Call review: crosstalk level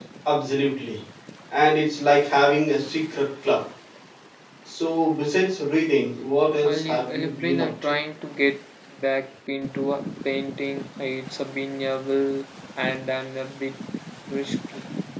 present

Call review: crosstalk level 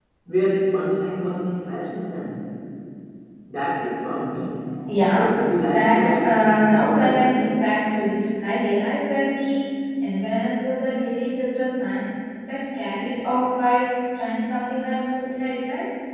present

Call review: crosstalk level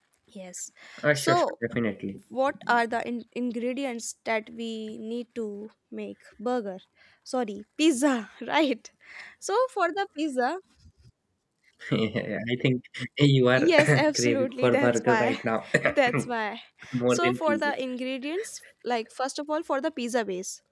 present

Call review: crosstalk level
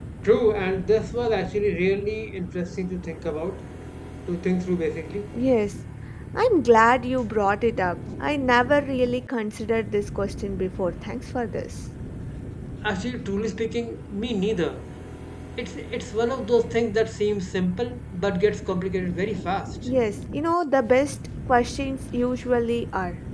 none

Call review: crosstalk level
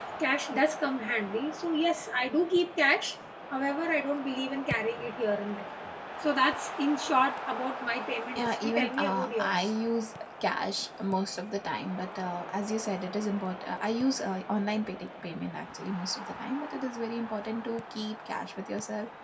present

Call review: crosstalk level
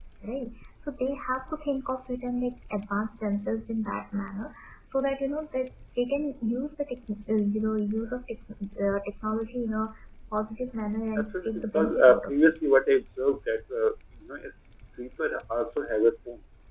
present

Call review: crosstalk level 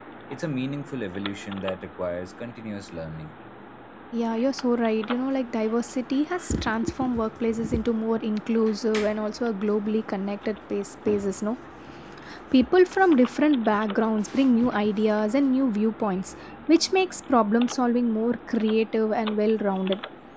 none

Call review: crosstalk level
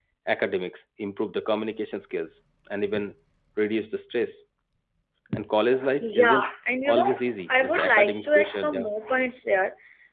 present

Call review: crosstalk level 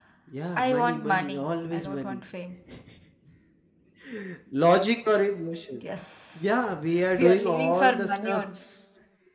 present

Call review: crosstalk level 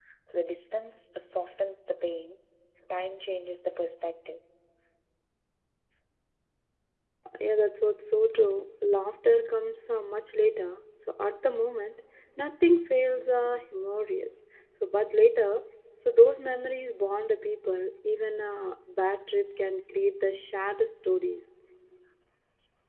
none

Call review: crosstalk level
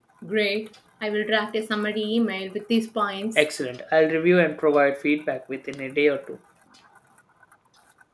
none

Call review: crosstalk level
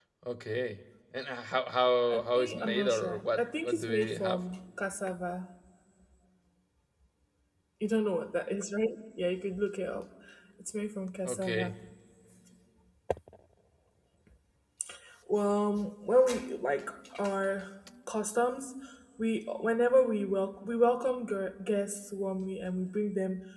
present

